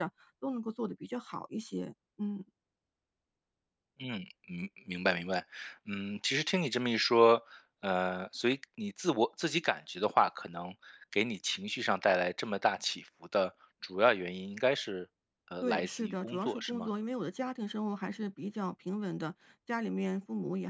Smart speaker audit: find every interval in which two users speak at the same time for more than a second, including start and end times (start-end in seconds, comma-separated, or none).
15.6-16.9